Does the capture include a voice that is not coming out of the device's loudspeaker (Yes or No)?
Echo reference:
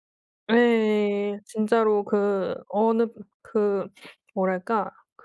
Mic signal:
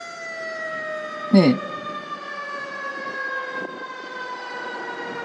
Yes